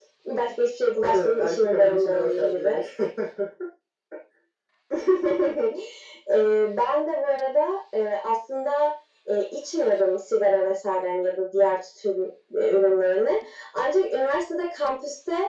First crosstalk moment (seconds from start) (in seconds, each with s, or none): 1.0 s